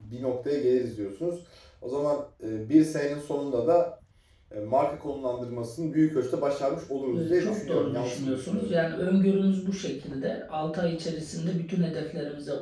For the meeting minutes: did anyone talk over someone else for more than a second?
Yes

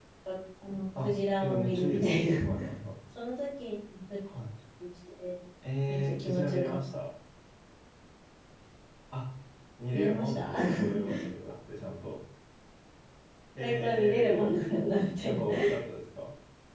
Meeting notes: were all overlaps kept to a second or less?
No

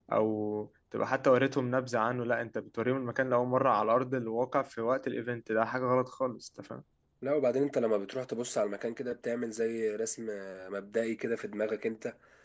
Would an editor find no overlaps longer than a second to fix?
Yes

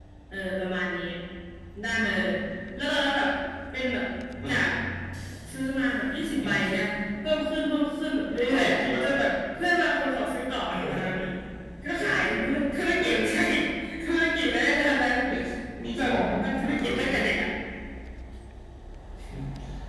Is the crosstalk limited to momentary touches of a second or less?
No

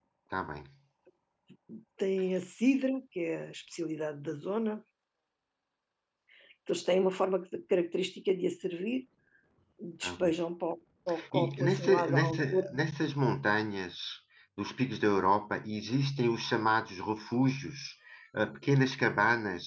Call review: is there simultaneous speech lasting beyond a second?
Yes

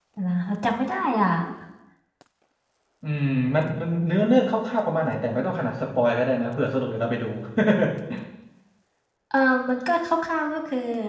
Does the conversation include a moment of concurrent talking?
No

